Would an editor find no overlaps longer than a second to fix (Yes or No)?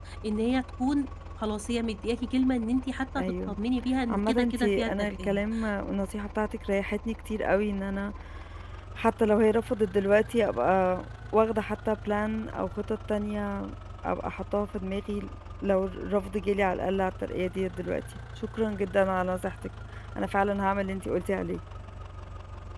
No